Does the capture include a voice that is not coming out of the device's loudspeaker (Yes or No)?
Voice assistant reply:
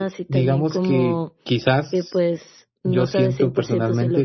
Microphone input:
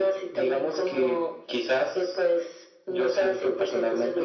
No